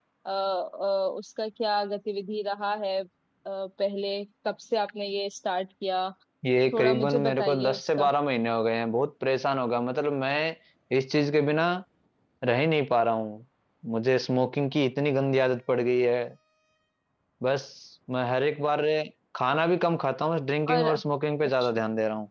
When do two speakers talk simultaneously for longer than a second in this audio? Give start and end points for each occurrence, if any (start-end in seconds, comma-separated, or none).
6.7-8.1